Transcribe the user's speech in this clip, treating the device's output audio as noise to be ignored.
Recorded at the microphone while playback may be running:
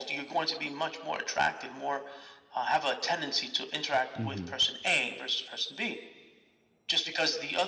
Mhm.

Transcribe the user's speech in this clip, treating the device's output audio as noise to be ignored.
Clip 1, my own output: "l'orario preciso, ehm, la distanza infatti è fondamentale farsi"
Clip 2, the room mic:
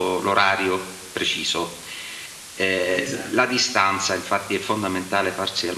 esatto.

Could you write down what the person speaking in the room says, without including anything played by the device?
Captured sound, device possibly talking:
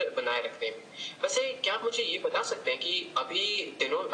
none

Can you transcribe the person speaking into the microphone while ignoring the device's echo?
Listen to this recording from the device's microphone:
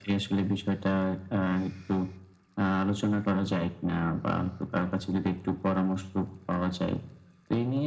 none

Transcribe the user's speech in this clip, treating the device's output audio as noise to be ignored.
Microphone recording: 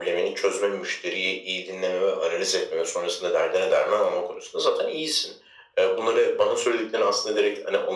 none

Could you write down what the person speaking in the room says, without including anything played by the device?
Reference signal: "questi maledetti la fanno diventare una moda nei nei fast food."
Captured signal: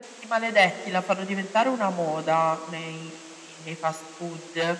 none

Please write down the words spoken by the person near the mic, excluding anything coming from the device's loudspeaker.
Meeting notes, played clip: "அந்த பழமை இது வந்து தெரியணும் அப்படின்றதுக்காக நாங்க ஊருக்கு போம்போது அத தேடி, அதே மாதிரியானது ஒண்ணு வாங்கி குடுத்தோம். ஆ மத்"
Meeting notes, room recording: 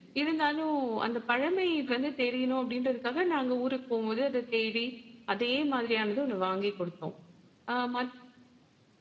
none

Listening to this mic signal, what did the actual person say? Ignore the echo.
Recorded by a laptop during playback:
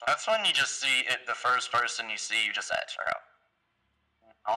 none

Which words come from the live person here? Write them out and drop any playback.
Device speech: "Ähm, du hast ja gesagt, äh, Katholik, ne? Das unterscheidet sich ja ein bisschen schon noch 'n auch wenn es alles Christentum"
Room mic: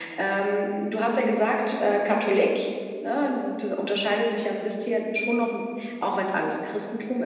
none

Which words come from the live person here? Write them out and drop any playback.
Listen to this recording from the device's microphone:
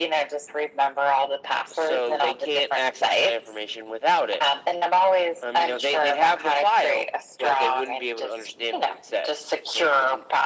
none

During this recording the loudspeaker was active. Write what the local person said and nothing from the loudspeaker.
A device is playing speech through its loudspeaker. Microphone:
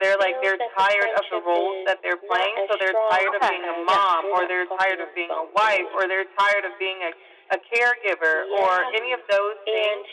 Okay. Yeah.

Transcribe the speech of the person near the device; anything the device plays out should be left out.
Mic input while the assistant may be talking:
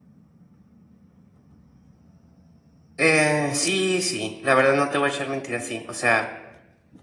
Eh, sí, sí, la verdad no te voy a echar mentiras, sí. O sea,

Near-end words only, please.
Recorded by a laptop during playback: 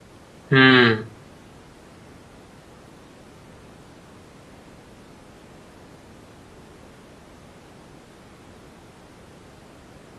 हुँ।

